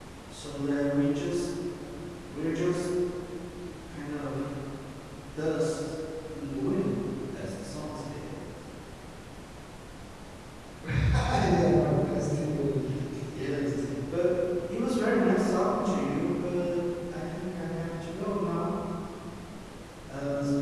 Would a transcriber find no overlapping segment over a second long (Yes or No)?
Yes